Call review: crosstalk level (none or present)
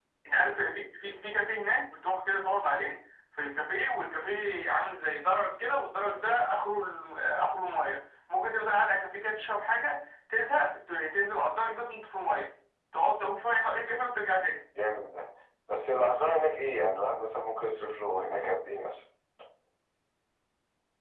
none